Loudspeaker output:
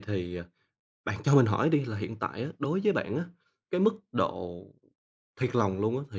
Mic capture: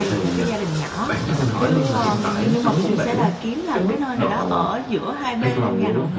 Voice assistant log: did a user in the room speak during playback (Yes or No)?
Yes